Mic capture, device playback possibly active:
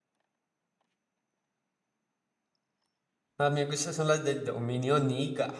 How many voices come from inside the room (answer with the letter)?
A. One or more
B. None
A